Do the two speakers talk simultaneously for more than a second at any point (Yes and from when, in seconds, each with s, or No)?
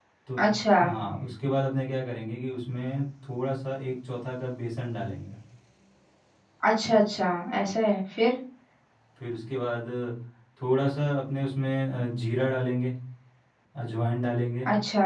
No